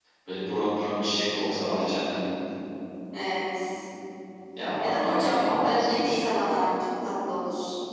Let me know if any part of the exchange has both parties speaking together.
Yes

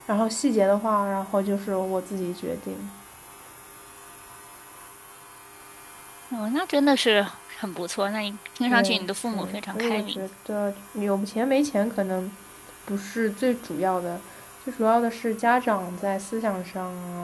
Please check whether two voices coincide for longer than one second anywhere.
Yes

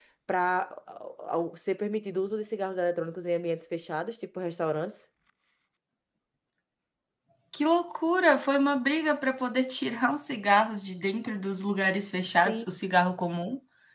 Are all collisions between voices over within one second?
Yes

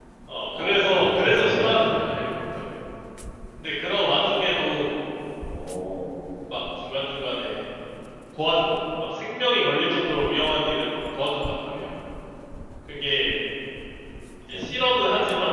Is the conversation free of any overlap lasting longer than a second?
No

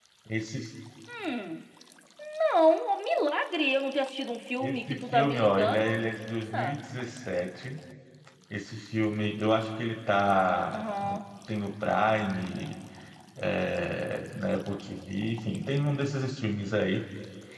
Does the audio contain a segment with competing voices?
Yes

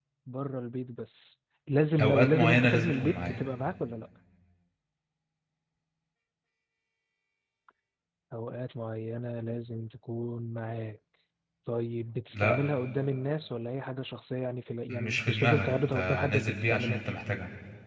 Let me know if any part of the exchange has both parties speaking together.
Yes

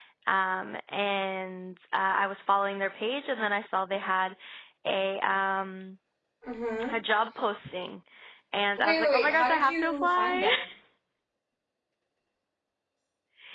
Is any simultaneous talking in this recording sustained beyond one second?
Yes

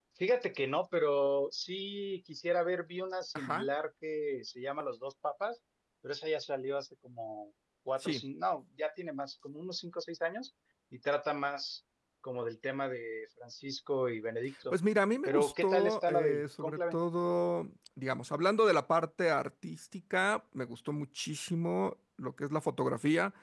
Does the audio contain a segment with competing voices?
Yes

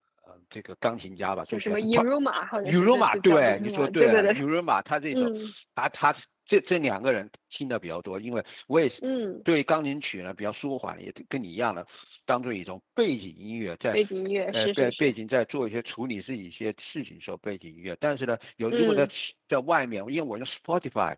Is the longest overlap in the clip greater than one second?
Yes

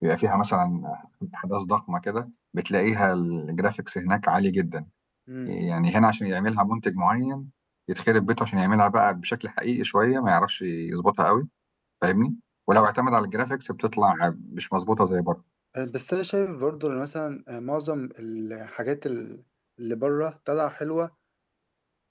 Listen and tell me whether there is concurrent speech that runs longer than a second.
No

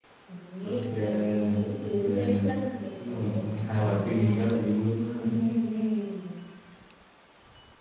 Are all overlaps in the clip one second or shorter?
No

